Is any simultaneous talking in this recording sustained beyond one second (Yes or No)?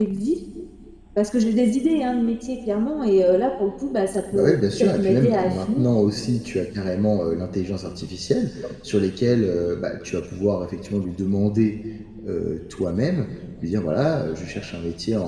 Yes